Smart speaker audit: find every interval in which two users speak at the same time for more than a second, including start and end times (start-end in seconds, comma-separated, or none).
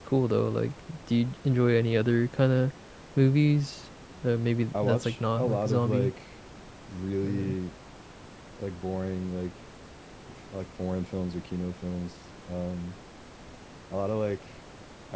4.7-6.1